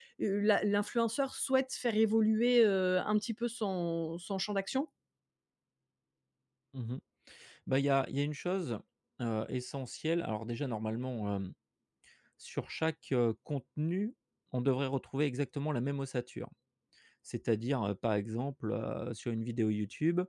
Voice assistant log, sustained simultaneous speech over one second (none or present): none